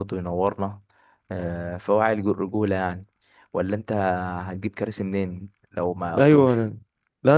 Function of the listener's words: taking over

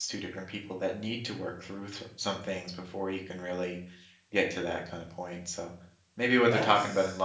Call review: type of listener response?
listening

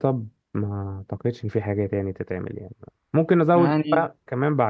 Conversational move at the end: listening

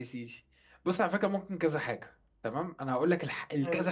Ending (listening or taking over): listening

